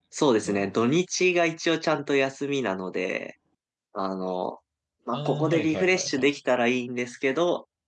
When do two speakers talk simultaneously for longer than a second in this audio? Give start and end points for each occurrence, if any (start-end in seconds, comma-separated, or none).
5.1-6.4